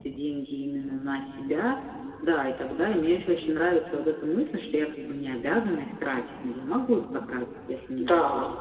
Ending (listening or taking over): taking over